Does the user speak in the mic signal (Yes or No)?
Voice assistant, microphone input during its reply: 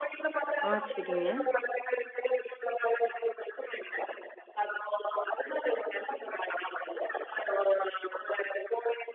Yes